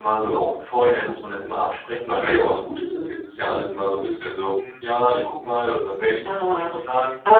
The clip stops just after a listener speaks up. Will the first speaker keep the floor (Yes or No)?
No